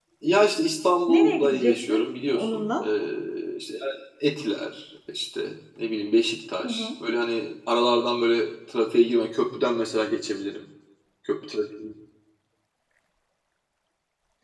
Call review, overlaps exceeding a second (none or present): present